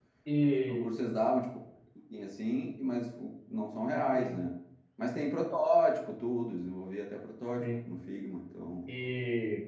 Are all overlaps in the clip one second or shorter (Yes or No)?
Yes